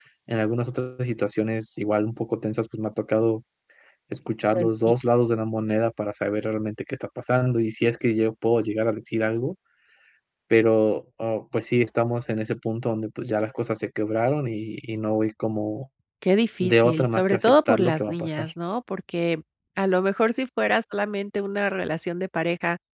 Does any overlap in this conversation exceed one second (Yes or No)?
Yes